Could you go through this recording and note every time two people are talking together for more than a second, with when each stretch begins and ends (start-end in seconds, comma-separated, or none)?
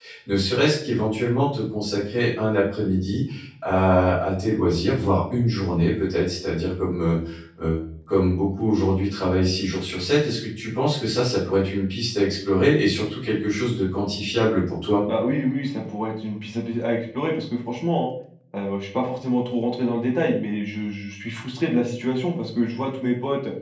none